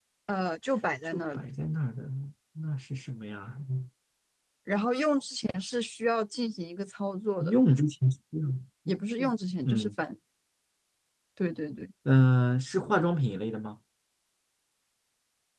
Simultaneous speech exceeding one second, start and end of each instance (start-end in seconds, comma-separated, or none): none